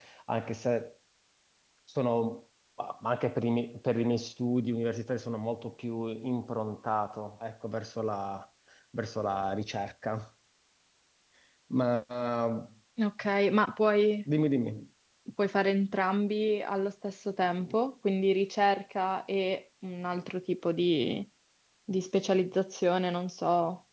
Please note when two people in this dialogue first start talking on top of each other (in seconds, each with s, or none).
none